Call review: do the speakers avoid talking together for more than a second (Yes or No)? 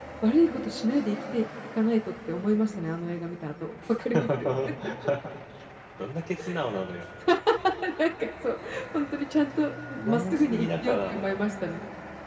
No